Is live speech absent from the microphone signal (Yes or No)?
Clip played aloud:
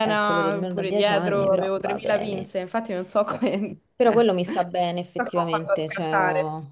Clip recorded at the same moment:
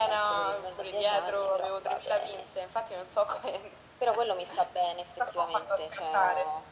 Yes